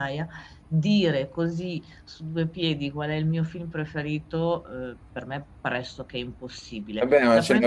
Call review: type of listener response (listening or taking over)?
taking over